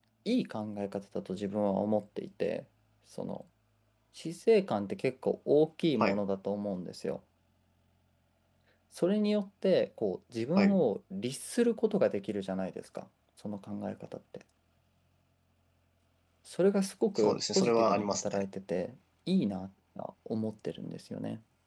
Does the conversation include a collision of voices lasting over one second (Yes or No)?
Yes